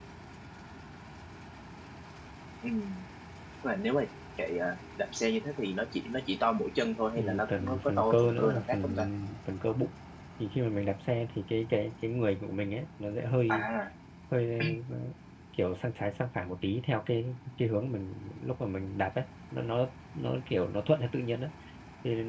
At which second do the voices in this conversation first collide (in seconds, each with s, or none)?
7.2 s